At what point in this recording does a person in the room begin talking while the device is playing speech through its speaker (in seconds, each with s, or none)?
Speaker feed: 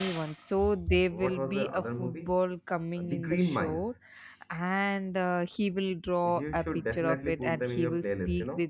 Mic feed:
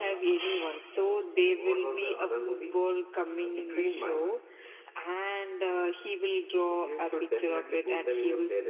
none